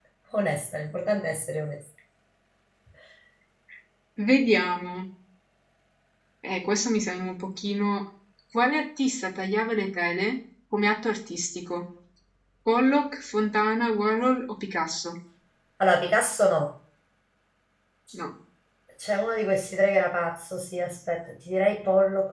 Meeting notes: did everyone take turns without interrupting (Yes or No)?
Yes